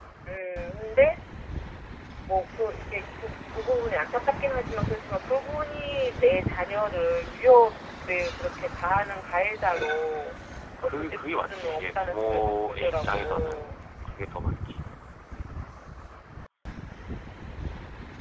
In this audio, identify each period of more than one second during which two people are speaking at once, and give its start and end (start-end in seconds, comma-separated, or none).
10.8-13.7